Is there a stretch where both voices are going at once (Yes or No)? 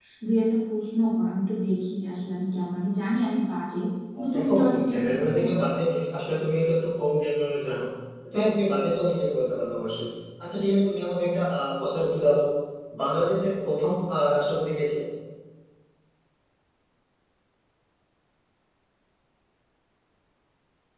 Yes